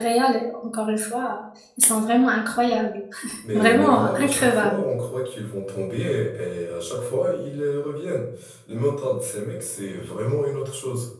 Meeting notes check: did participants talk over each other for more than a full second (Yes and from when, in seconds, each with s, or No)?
Yes, from 3.5 s